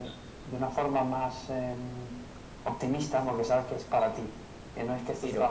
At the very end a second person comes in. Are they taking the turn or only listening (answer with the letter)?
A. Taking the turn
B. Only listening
B